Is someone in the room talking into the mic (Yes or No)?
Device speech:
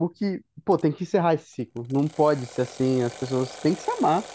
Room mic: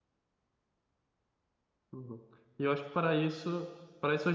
Yes